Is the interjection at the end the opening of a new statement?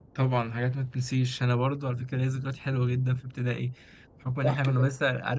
No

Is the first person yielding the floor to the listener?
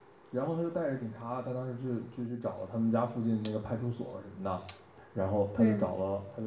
No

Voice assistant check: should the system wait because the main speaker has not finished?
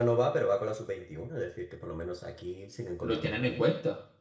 No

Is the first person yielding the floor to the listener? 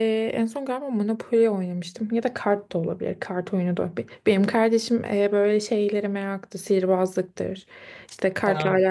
No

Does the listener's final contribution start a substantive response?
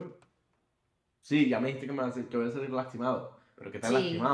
No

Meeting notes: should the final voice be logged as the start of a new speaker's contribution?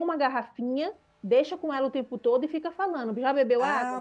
Yes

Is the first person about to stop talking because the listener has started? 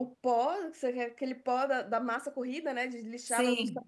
No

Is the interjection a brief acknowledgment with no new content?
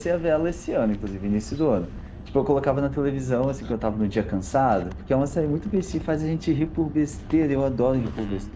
No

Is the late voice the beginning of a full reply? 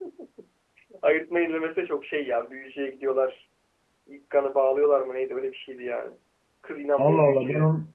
Yes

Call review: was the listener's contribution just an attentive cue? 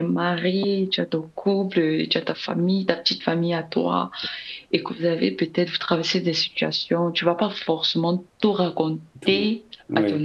Yes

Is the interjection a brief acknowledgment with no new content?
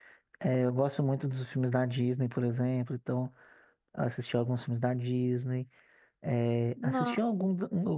Yes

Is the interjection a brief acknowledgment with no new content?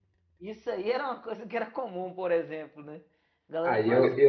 No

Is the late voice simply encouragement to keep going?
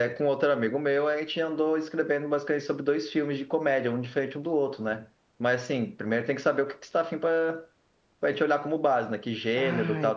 No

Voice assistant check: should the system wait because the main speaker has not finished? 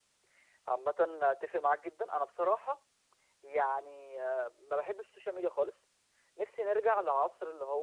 Yes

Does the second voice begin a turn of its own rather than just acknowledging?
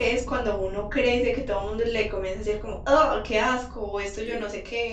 No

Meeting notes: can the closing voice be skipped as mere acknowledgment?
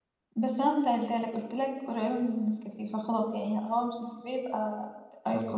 No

